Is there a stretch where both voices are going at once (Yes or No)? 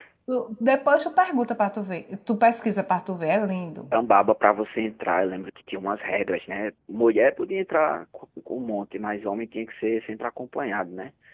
No